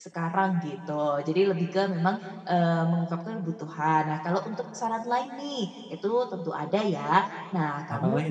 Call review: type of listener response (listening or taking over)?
listening